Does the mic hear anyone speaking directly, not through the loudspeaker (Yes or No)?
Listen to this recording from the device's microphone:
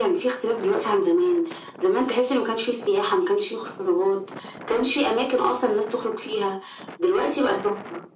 No